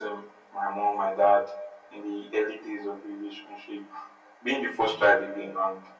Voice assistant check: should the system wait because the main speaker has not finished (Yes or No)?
Yes